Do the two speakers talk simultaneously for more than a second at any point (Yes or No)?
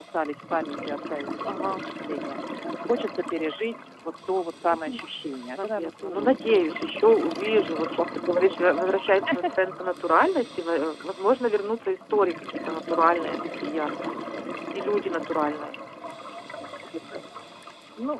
Yes